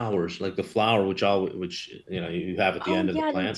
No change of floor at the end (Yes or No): No